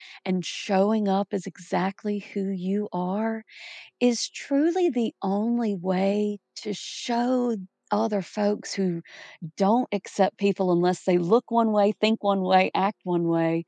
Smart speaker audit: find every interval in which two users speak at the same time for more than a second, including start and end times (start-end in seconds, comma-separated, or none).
none